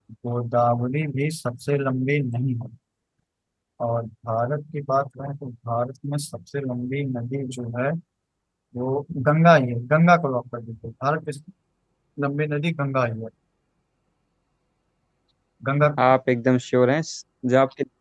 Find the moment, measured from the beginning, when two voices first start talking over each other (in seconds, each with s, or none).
none